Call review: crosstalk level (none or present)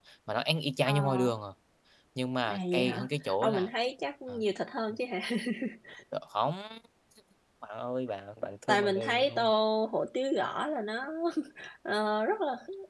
present